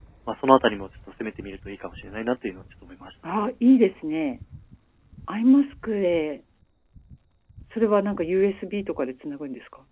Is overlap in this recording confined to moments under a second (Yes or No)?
Yes